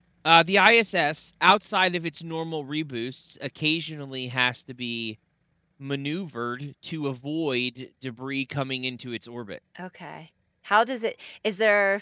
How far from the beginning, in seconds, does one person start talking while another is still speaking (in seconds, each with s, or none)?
none